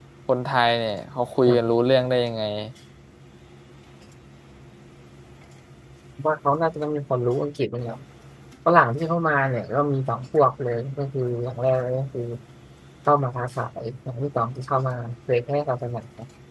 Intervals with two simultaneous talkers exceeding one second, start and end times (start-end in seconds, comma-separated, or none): none